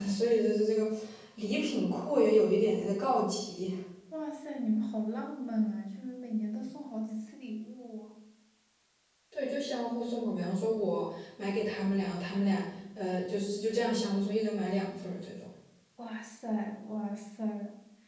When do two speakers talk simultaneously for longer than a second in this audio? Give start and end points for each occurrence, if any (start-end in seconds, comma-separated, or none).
none